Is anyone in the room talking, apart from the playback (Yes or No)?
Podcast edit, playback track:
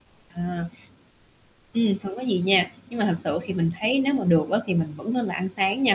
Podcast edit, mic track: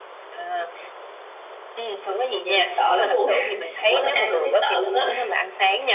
Yes